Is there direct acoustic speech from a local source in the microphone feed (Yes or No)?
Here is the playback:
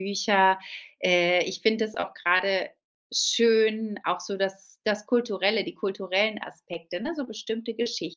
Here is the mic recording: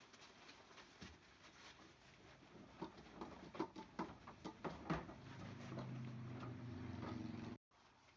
No